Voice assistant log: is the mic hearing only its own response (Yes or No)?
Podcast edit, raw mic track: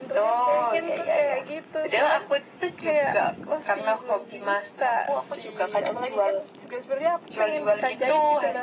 Yes